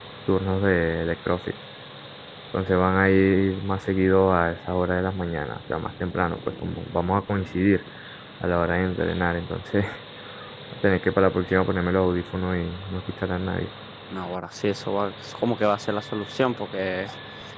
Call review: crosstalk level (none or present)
none